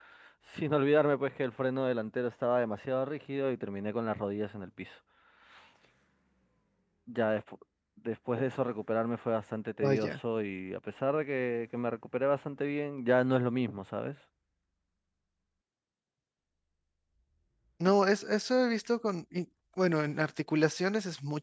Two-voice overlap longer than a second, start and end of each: none

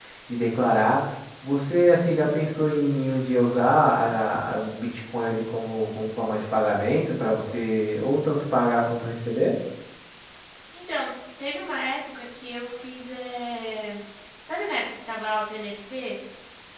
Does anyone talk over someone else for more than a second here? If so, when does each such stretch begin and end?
none

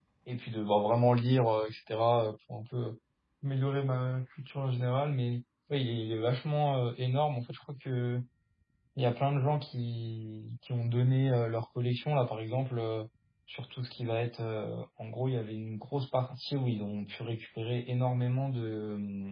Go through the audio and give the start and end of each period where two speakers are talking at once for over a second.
none

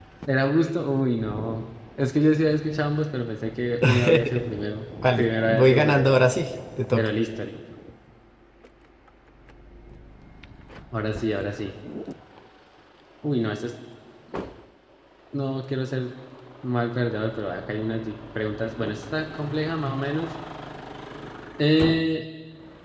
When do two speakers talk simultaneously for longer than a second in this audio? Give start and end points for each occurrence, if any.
5.1-6.3

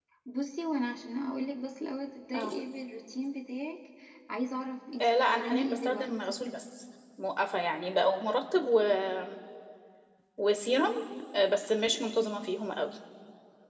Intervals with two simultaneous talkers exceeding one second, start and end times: 5.0-6.4

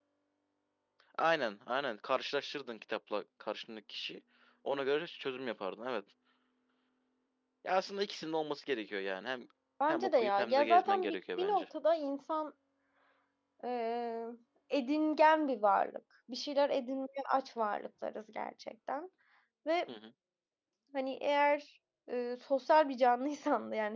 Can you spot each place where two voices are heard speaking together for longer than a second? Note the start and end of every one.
9.9-11.6

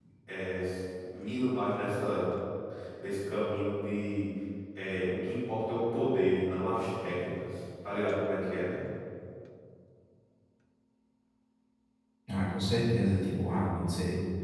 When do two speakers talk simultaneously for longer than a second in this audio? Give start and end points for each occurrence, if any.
none

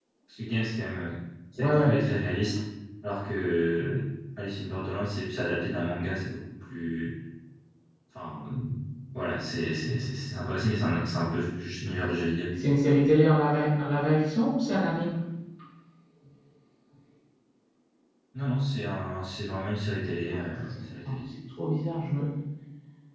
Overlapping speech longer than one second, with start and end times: none

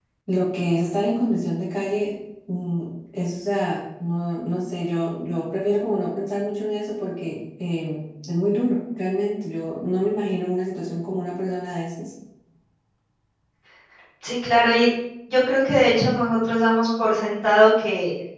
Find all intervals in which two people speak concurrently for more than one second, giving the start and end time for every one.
none

